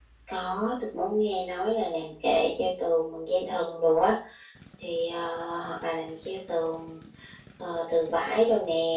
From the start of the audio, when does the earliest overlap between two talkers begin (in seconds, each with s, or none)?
none